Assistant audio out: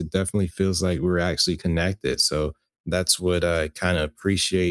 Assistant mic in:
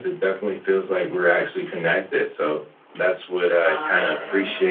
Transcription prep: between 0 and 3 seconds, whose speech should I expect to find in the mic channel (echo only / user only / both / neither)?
echo only